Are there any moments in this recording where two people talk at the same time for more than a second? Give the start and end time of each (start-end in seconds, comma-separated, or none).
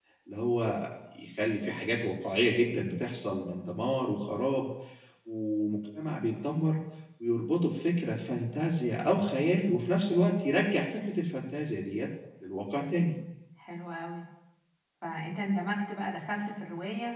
none